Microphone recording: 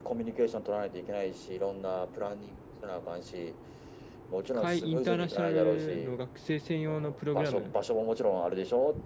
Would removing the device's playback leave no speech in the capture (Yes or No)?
No